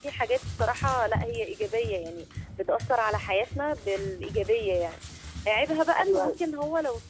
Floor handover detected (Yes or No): No